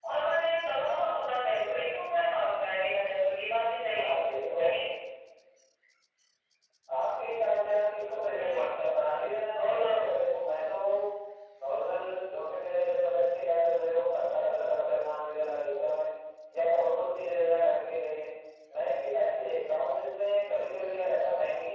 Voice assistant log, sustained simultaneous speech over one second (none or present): none